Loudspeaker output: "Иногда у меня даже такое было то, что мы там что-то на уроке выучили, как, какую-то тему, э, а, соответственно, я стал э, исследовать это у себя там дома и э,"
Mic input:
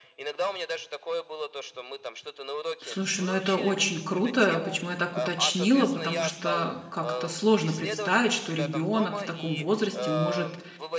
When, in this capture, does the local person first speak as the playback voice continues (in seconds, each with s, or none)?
2.8 s